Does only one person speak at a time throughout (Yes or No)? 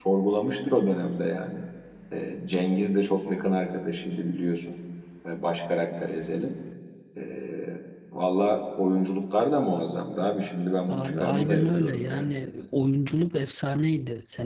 No